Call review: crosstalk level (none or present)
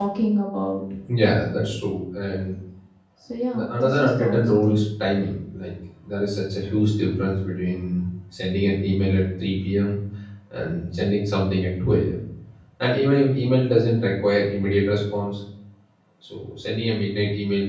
present